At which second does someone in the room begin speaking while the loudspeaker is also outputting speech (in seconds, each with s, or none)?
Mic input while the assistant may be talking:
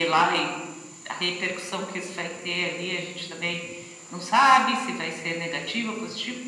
none